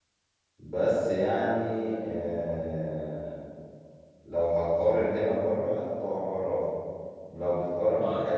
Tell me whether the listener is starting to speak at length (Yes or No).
No